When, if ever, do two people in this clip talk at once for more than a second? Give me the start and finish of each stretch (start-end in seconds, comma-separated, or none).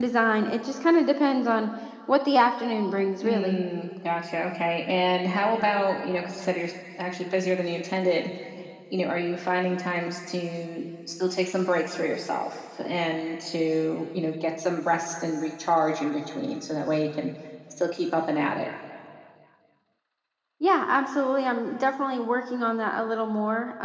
none